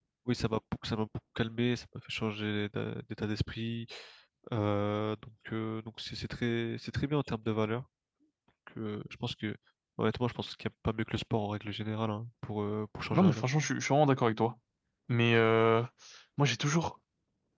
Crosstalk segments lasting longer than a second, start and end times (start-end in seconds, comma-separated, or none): none